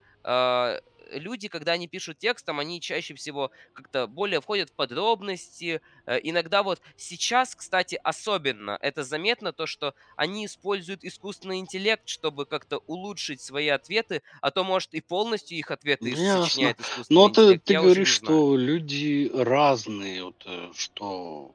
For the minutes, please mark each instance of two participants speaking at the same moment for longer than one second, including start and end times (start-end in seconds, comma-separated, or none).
16.0-18.4